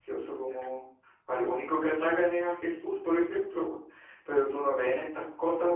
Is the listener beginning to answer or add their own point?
No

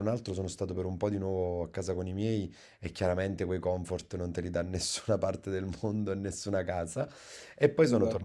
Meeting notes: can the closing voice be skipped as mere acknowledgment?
Yes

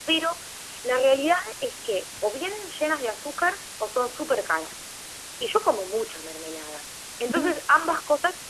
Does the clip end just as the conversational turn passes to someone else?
No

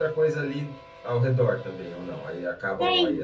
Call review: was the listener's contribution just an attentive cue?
No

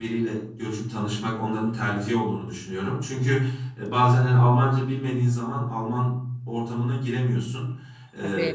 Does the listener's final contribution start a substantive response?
No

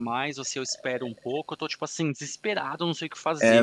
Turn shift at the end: Yes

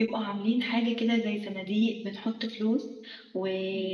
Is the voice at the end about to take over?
No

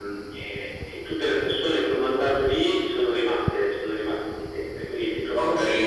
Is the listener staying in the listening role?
No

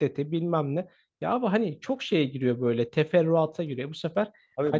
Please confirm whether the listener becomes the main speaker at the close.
Yes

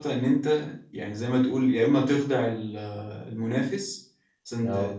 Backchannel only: Yes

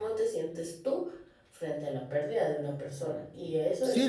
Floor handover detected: Yes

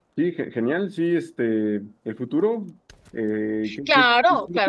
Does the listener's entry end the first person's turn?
Yes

